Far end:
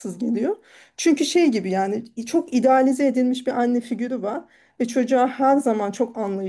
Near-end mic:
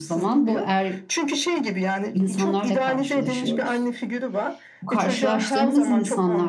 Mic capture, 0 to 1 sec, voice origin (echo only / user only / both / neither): both